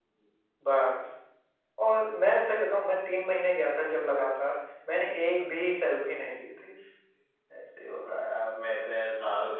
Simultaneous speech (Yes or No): No